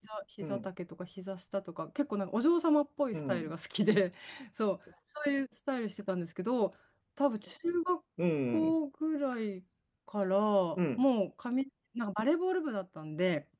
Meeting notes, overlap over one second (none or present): none